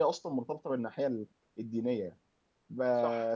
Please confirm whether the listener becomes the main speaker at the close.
No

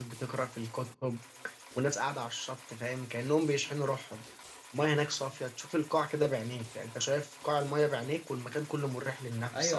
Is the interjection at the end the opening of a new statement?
Yes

